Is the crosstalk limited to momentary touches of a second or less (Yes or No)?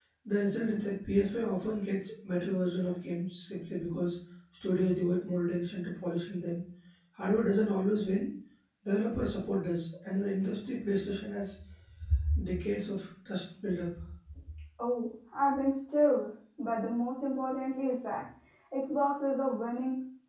Yes